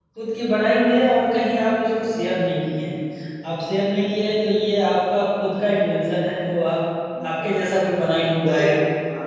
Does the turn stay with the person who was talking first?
No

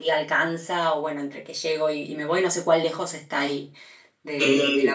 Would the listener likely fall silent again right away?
No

